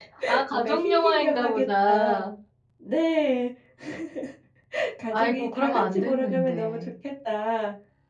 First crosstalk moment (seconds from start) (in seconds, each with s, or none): 0.5 s